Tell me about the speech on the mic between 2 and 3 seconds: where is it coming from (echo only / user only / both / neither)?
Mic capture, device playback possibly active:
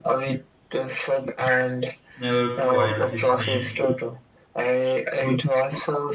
both